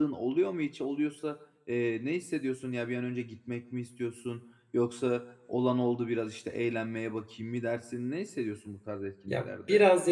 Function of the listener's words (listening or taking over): taking over